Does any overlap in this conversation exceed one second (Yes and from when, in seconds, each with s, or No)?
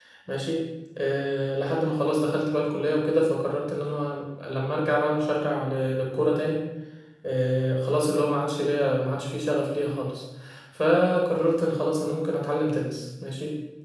No